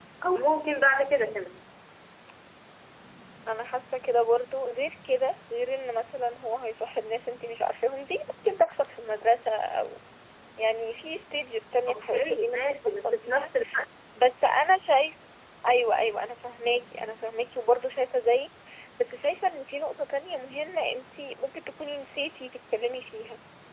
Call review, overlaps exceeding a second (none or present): present